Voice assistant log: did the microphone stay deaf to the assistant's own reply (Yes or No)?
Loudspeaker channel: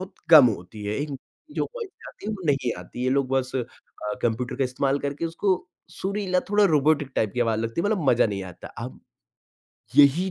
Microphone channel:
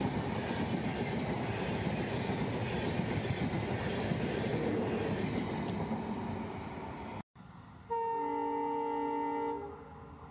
Yes